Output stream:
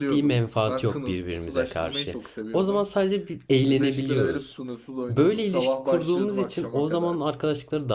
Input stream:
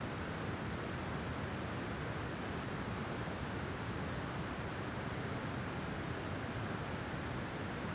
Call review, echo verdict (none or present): none